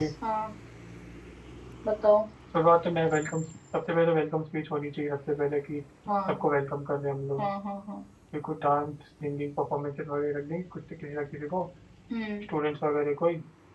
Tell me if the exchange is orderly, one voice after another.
Yes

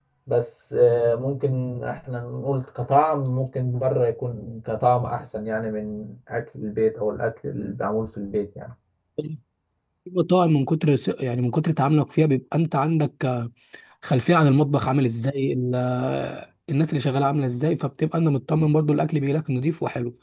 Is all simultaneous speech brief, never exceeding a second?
Yes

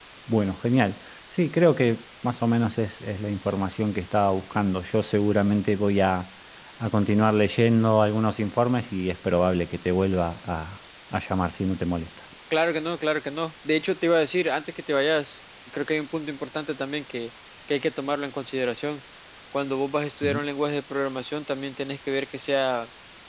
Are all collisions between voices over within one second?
Yes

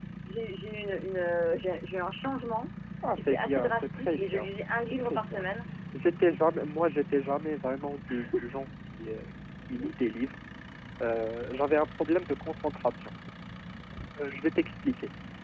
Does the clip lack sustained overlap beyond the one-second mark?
No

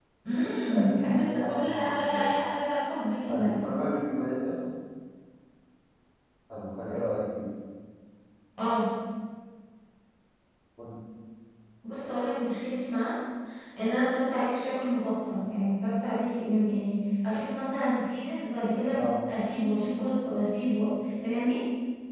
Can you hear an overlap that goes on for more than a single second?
Yes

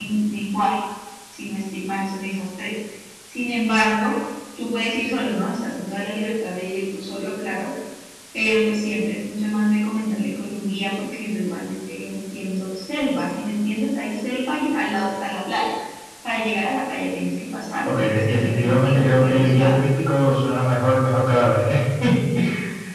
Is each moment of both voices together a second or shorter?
No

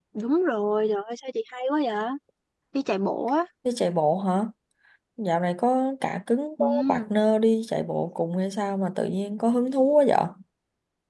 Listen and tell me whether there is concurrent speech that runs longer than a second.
No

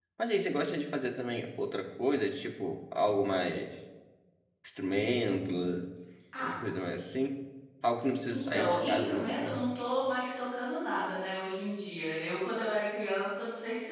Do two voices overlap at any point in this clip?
Yes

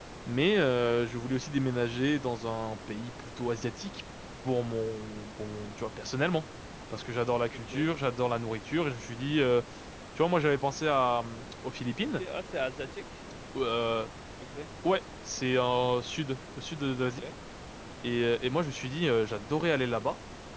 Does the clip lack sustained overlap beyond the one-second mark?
Yes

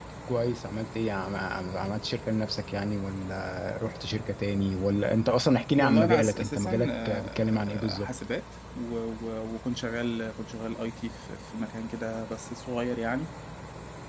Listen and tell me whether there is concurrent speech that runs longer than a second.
Yes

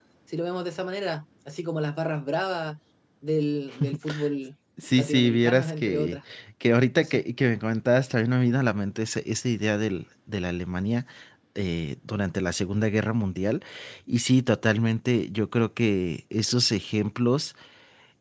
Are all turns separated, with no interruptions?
No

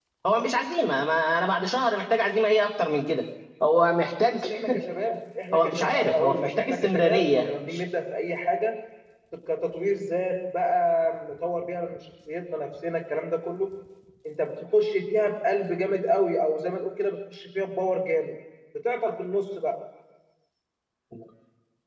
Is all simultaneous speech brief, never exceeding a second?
No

